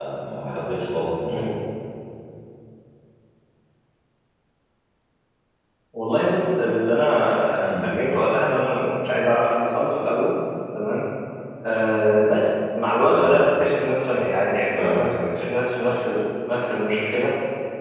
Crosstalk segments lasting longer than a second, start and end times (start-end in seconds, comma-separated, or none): none